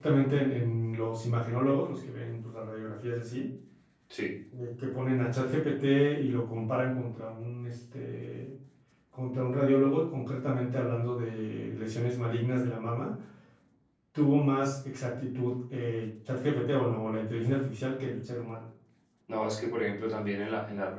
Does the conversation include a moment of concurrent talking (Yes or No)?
No